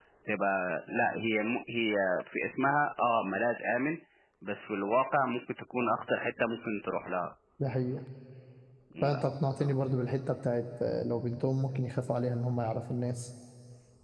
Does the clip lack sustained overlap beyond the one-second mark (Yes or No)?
Yes